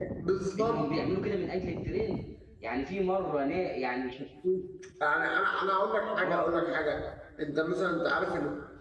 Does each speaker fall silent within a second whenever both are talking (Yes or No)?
Yes